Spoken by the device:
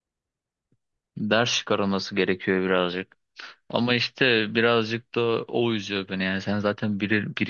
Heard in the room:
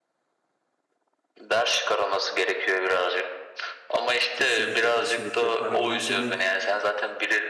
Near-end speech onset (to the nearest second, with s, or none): 4 s